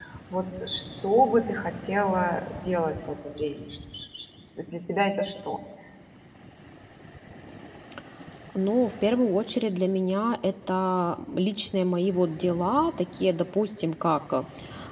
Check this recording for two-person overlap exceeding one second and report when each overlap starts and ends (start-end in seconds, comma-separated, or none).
none